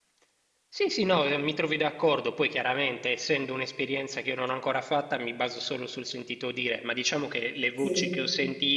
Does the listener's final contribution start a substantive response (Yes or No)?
No